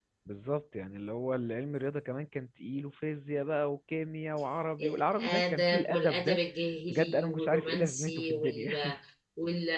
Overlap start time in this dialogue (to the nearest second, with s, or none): 5 s